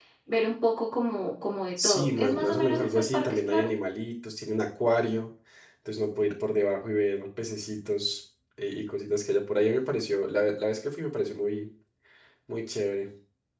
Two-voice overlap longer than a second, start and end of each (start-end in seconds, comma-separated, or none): 1.8-3.7